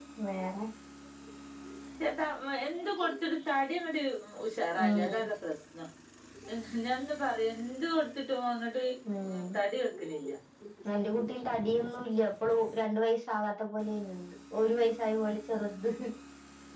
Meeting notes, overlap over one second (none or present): none